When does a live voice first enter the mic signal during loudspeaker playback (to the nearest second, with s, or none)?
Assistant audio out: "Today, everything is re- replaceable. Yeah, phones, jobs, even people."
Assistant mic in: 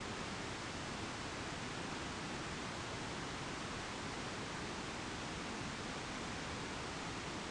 none